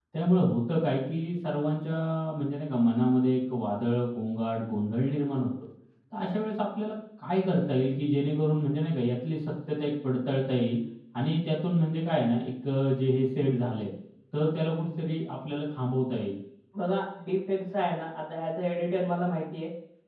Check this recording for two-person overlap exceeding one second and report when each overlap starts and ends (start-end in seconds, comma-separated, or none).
none